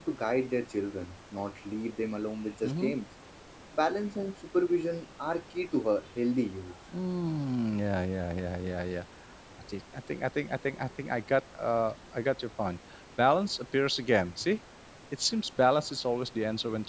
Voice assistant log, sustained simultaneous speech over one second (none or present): none